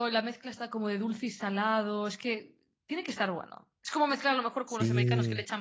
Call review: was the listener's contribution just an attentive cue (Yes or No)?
Yes